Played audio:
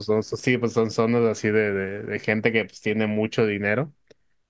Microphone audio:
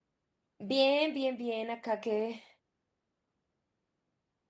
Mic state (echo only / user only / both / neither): user only